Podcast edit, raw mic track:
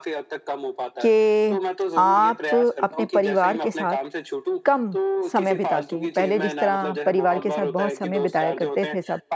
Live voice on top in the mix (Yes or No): Yes